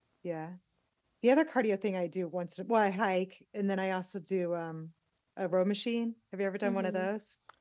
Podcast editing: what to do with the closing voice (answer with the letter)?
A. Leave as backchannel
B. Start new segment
B